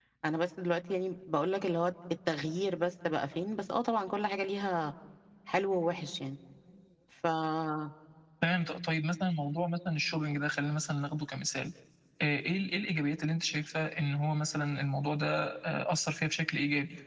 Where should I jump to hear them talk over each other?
none

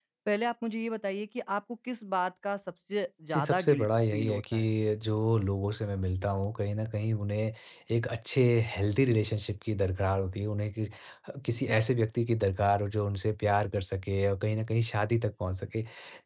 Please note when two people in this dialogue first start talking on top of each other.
3.3 s

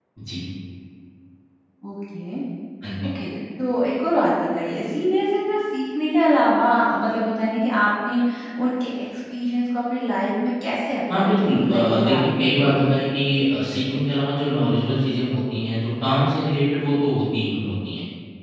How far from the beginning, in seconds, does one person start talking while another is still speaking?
11.1 s

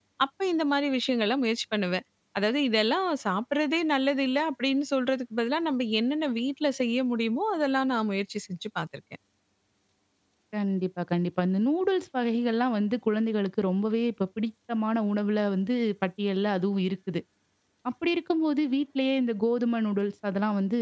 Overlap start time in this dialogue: none

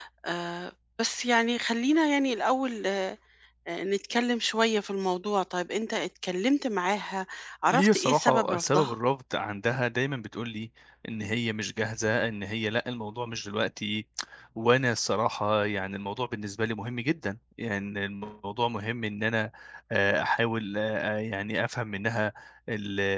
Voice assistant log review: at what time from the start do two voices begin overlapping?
7.7 s

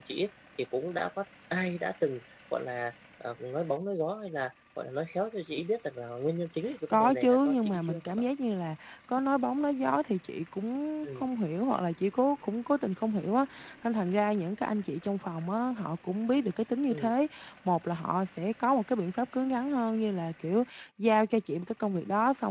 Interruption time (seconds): 6.9 s

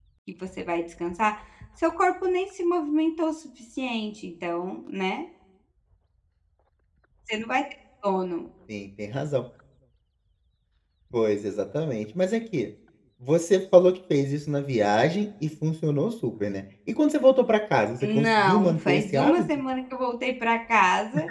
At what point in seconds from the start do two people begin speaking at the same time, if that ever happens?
18.0 s

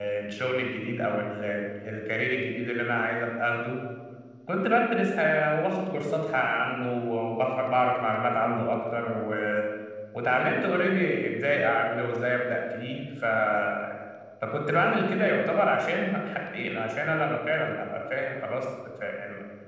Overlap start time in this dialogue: none

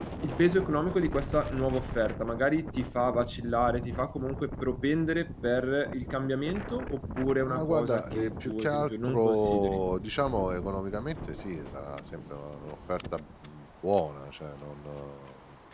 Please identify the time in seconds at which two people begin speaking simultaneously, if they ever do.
7.5 s

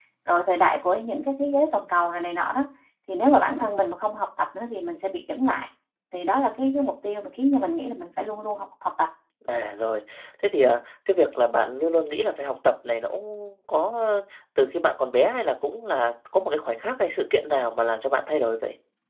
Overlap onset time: none

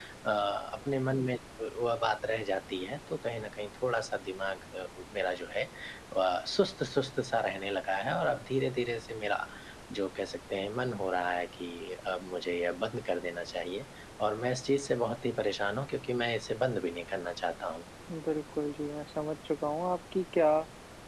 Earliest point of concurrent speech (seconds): none

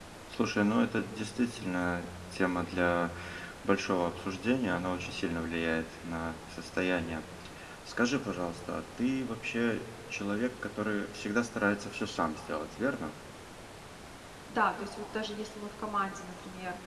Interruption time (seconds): none

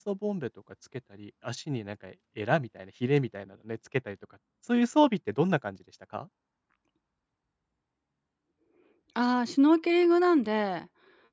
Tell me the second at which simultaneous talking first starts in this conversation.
none

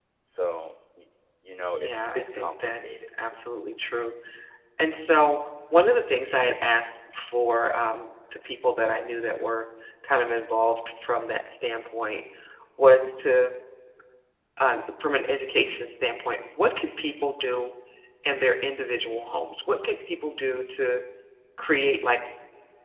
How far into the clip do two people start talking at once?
1.7 s

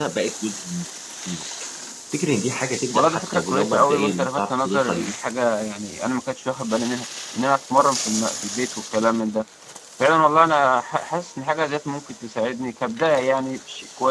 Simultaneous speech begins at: 2.9 s

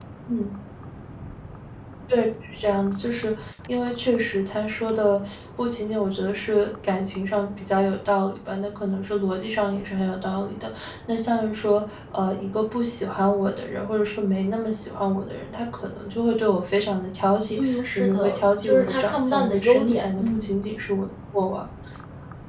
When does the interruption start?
17.6 s

